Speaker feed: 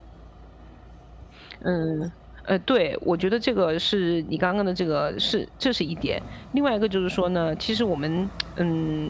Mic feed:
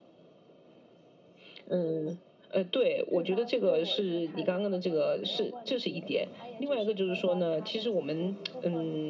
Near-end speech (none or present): present